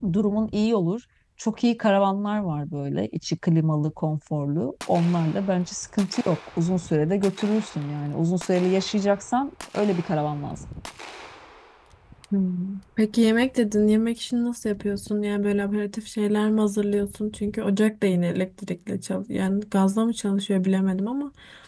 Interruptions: none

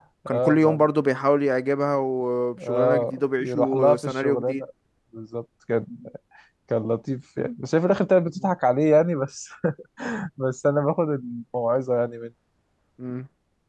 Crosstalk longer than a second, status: present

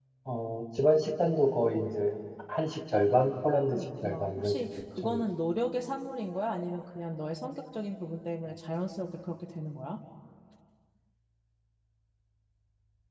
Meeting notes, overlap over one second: present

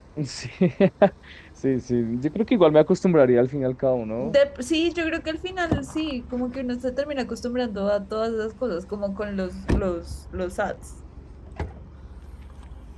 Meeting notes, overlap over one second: none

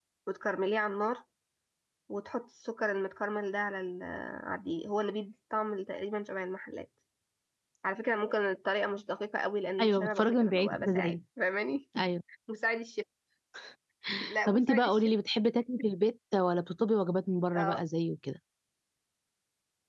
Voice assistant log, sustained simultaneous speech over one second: present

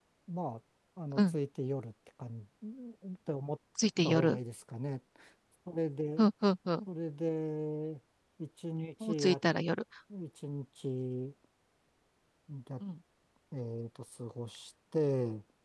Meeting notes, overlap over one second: none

